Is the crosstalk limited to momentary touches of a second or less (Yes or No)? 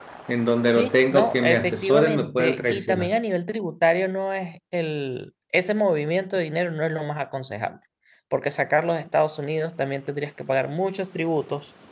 No